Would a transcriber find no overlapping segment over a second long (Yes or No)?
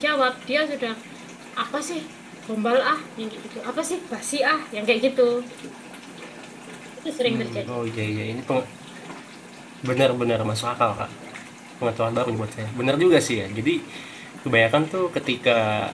Yes